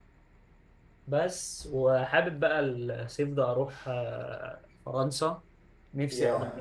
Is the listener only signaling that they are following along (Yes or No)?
Yes